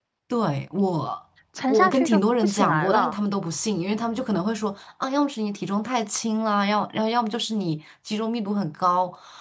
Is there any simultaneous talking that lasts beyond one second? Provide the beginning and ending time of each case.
1.7-3.2

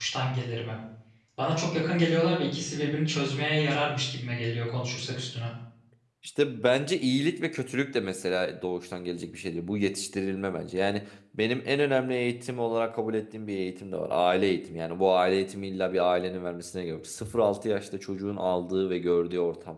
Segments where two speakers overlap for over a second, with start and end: none

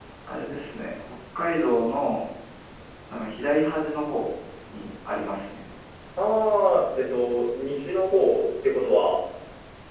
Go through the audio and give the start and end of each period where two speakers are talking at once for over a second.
none

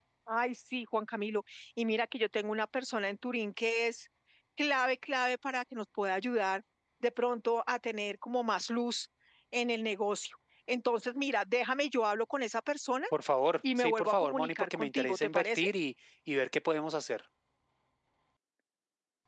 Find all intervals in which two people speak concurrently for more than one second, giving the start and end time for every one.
13.8-15.7

